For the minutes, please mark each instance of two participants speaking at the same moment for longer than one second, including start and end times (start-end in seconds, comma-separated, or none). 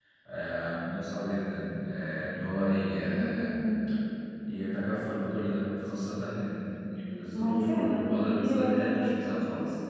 7.3-9.2